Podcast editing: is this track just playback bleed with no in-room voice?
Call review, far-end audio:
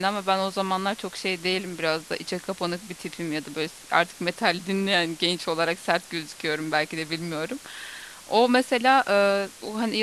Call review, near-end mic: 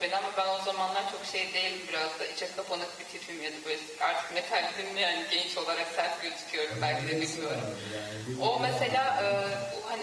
No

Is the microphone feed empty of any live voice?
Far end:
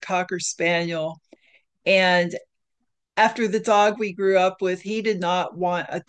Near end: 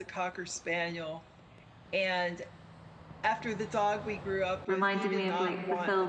No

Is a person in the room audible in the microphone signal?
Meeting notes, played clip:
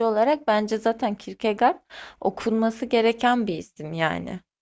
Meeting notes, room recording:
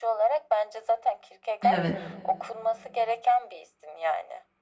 Yes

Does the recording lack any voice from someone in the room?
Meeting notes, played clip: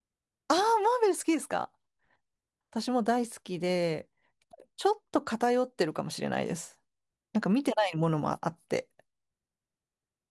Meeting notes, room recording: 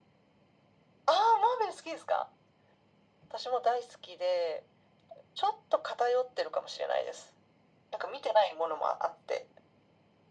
Yes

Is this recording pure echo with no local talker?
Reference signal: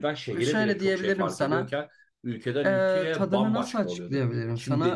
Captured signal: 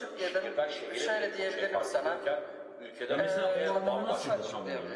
No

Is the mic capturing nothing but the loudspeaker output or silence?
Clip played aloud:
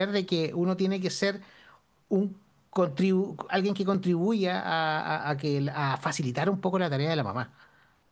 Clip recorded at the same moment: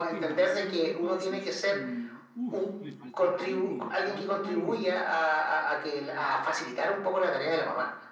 No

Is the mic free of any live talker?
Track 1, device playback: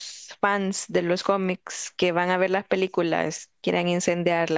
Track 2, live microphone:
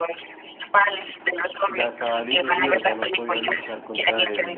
No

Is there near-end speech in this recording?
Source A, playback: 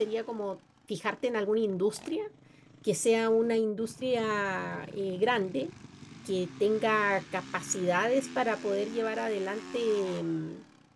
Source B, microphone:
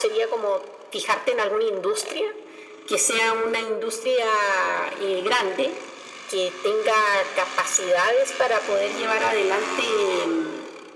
No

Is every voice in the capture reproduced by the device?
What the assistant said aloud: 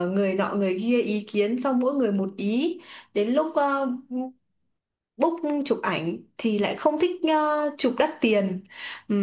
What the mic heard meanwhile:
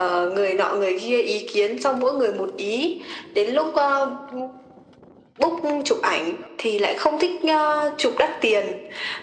Yes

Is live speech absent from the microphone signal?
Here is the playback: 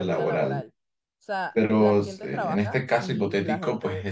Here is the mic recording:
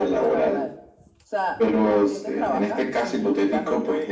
Yes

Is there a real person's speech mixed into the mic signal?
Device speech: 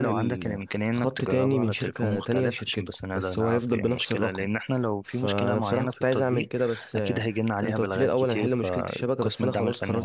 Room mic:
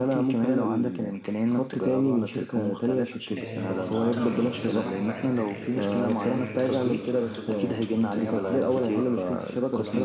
Yes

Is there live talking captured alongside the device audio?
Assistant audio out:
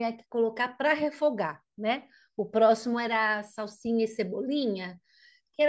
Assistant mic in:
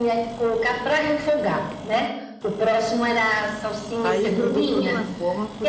Yes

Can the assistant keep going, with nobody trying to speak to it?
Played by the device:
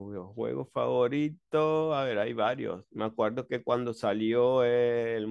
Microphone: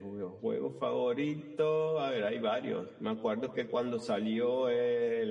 Yes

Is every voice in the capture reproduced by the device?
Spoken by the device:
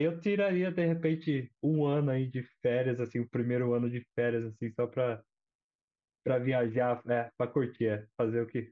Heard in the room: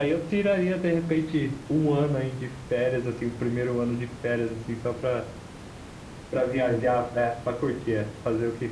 Yes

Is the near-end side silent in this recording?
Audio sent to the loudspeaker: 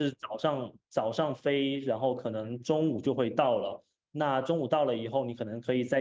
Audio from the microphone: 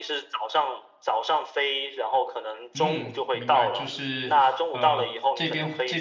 No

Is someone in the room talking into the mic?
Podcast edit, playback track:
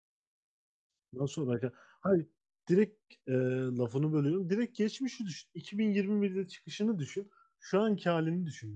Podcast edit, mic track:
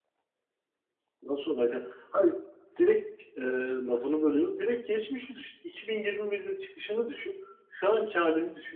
No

